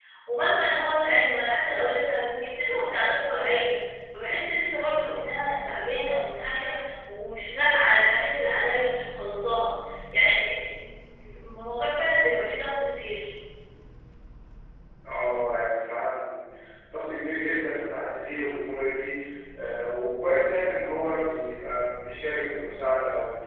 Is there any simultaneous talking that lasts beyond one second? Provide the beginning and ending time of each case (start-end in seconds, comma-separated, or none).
none